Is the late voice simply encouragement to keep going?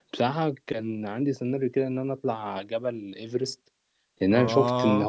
Yes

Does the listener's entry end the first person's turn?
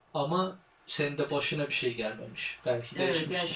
Yes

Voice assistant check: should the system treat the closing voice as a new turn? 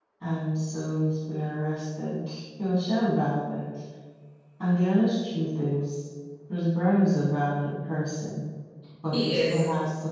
No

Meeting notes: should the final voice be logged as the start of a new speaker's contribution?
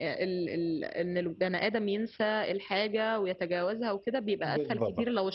No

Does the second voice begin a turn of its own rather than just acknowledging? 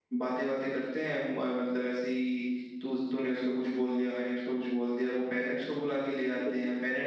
No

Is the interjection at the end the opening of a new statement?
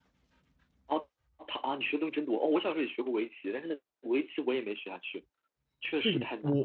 Yes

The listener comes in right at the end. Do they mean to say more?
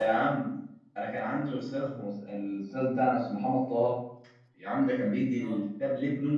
No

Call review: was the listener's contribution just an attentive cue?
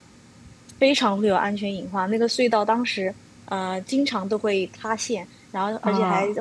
Yes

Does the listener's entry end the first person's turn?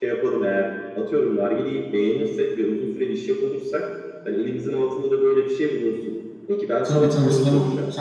Yes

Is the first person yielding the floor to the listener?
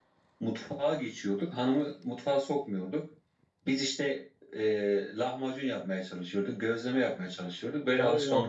Yes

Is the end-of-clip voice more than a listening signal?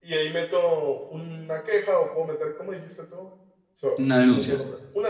No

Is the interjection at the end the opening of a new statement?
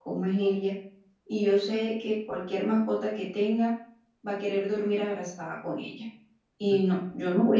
No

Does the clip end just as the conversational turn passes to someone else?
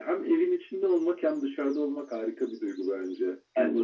No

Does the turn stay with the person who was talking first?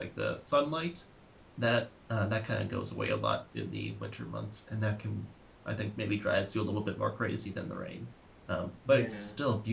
Yes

